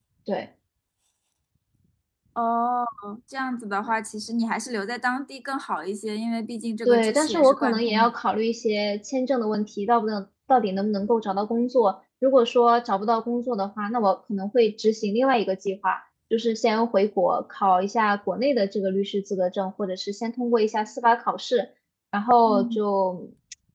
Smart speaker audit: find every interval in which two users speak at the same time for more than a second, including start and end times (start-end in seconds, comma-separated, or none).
6.8-8.2